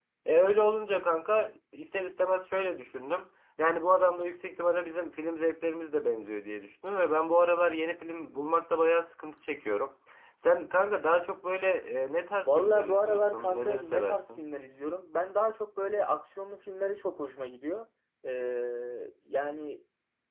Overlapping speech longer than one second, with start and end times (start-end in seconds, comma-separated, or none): 12.4-14.4